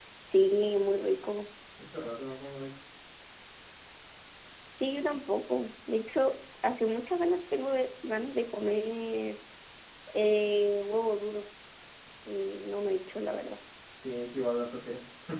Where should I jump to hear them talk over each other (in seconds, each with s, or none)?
none